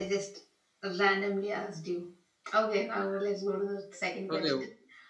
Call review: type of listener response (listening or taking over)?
taking over